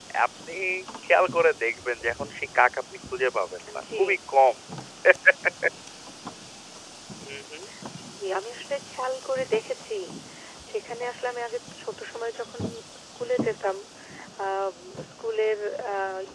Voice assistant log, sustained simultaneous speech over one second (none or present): none